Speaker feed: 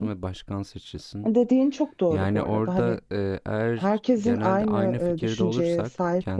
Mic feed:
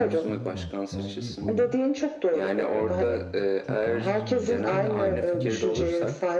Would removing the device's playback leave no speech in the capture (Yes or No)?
No